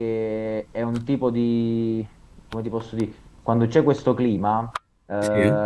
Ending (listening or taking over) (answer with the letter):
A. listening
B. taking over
A